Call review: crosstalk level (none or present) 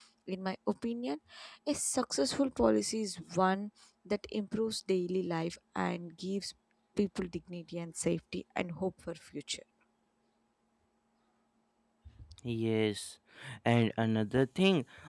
none